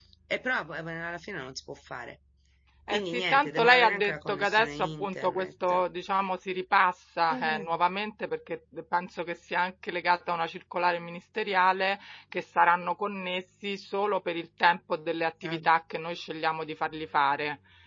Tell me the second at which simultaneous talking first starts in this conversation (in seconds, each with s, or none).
2.9 s